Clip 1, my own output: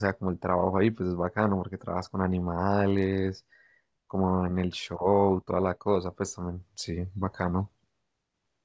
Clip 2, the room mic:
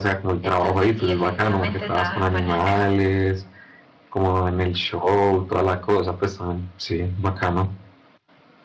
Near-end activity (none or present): present